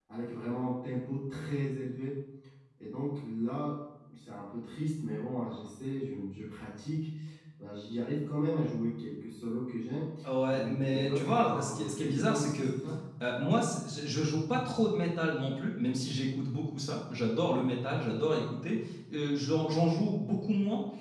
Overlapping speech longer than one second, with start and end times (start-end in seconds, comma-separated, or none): 10.5-12.7